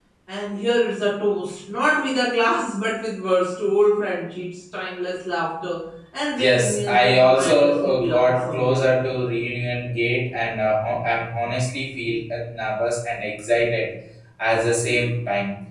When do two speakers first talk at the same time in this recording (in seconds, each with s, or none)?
6.4 s